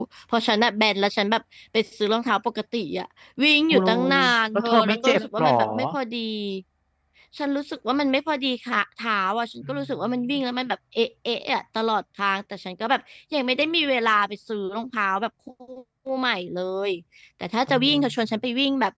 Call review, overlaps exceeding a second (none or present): present